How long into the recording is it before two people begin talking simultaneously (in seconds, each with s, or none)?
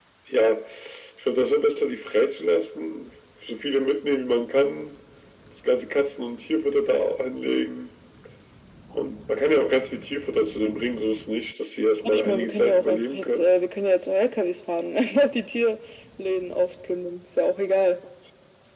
12.0 s